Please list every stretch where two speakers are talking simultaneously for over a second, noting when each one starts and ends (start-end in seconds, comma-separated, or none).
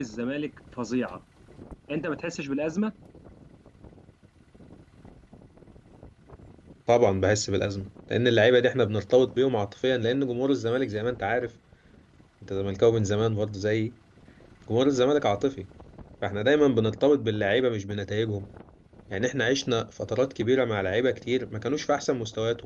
none